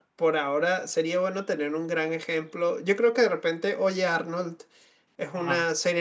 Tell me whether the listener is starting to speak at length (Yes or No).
No